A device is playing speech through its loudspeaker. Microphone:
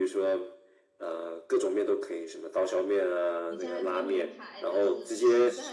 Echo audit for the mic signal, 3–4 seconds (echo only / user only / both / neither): both